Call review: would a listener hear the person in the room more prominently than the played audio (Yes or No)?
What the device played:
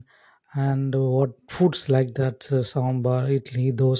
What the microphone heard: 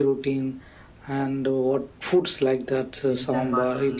No